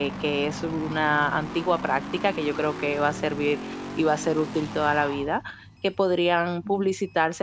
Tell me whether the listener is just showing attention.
Yes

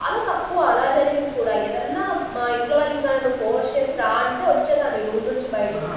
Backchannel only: No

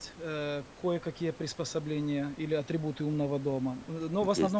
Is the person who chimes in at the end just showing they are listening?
Yes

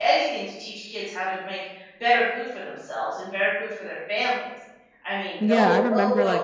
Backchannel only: No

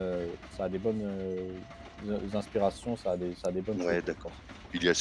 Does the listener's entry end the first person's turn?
Yes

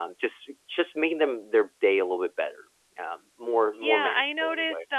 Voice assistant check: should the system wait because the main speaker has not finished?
No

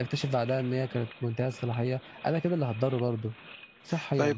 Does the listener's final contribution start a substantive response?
Yes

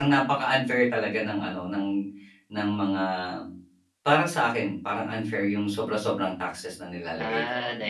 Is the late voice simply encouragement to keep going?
No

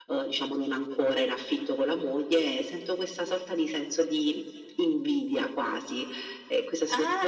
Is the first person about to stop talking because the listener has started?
Yes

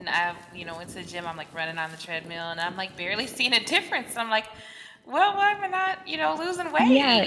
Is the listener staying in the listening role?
No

